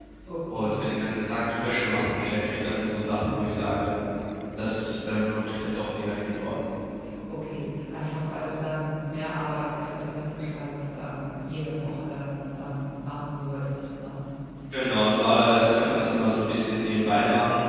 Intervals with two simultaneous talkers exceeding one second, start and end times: none

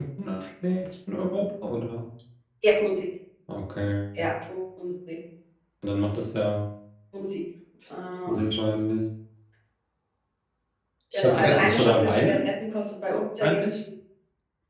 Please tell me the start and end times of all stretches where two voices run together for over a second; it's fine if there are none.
11.1-12.5

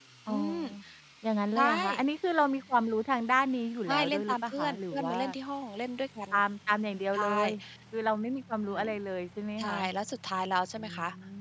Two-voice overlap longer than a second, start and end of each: 3.9-5.2

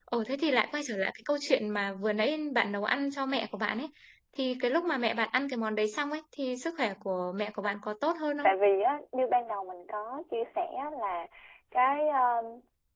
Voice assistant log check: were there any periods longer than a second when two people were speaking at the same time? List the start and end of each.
none

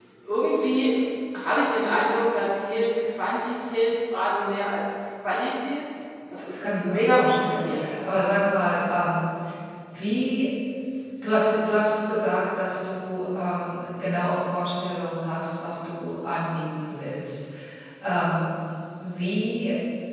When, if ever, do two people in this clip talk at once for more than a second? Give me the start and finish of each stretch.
6.4-8.0

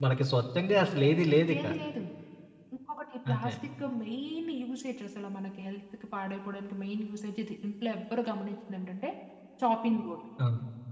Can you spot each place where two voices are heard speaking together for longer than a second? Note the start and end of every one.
none

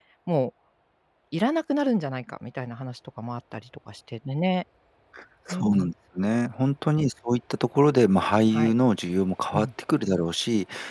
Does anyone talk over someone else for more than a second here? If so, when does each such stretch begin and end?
none

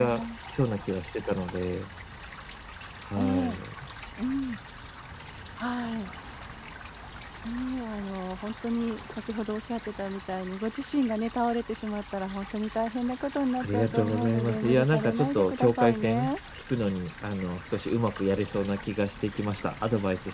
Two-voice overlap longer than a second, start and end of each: 13.6-16.3

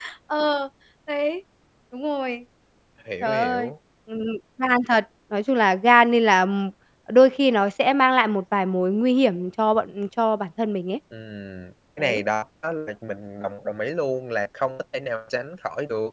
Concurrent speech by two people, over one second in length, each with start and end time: none

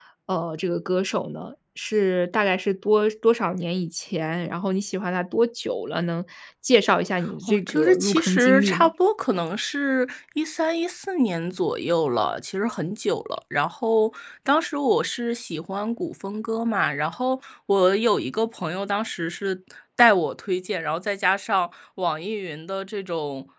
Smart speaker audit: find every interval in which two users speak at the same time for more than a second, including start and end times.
7.5-8.9

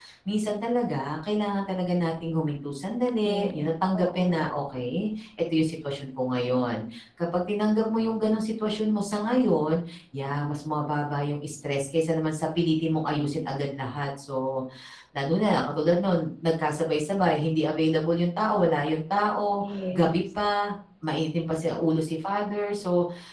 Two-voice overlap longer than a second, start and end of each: 3.2-4.6

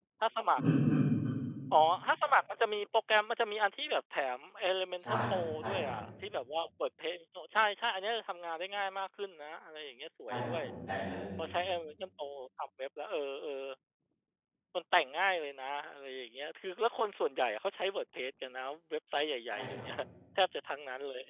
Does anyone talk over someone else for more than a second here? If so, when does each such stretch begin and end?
none

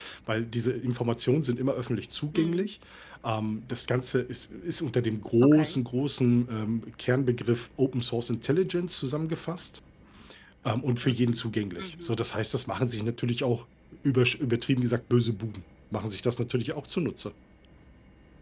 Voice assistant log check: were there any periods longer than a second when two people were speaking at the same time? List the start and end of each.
none

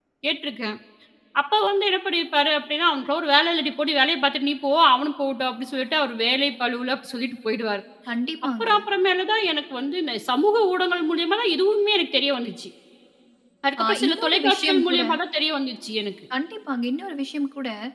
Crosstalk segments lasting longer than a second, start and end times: 13.8-15.0

